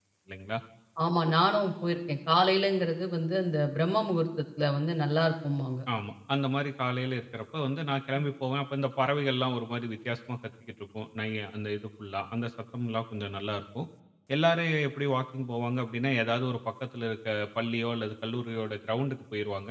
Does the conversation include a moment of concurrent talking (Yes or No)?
No